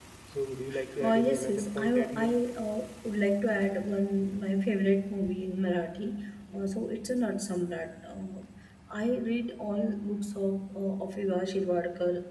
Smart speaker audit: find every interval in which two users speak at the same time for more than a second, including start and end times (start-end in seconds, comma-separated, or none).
1.0-2.3